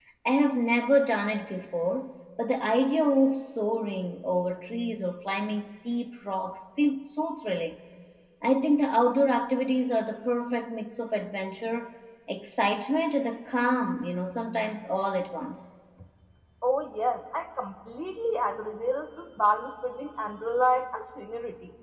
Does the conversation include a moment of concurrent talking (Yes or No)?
No